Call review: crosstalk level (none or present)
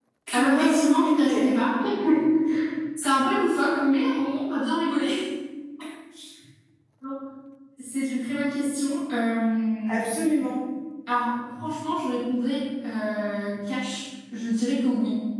present